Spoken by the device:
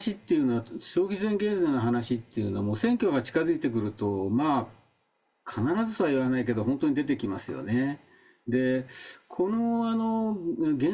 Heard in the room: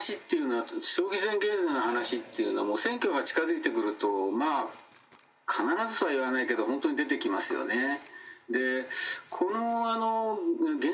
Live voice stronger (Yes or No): No